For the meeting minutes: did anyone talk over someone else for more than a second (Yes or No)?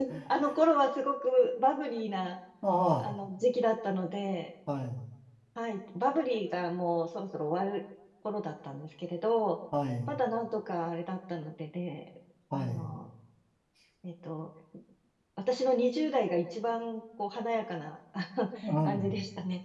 No